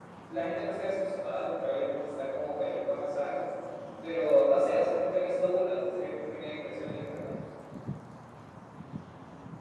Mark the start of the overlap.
none

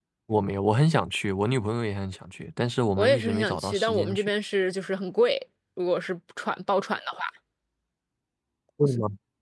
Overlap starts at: 3.0 s

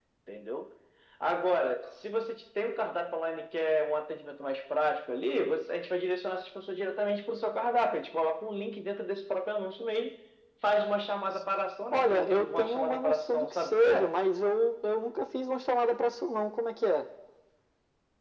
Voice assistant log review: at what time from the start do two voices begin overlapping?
11.9 s

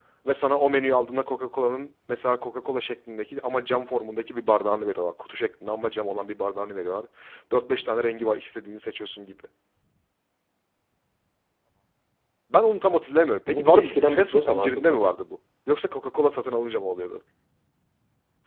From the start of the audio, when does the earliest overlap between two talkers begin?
13.5 s

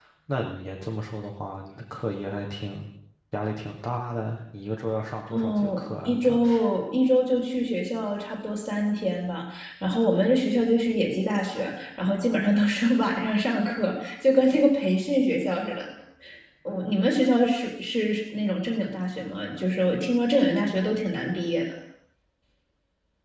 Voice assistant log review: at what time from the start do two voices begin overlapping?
5.3 s

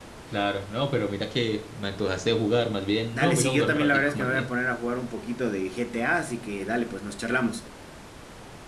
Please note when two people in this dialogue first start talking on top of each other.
3.1 s

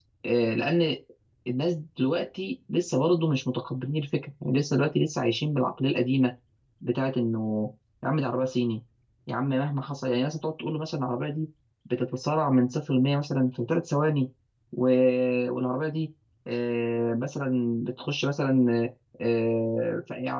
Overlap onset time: none

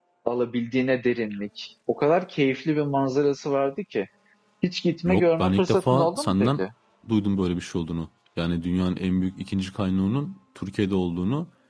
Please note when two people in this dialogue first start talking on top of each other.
5.1 s

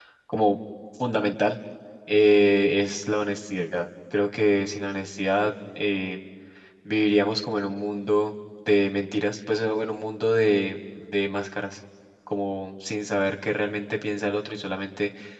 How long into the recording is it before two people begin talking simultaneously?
none

